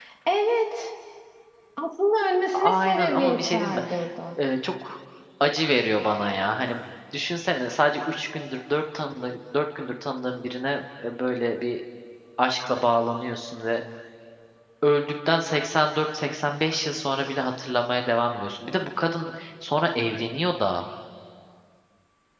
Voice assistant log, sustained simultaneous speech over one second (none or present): present